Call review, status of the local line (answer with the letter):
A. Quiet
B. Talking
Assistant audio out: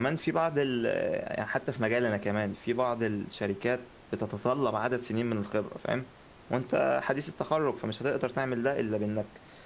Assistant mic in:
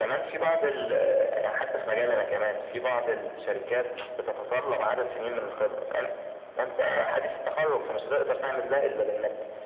A